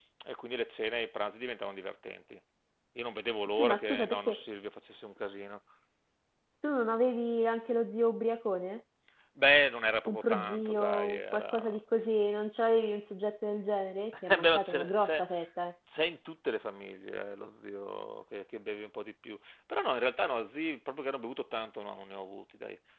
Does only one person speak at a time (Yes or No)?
No